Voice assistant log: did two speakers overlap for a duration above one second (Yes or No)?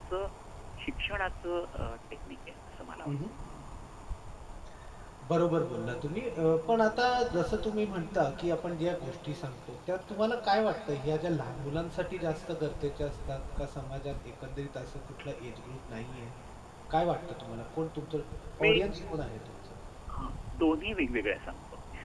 No